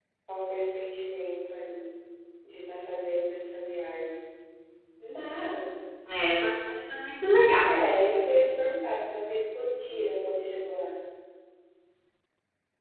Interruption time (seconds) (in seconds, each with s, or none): none